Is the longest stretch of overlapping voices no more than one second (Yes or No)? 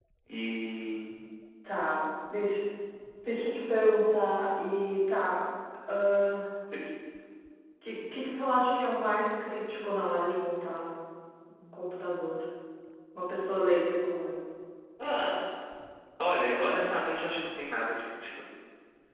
Yes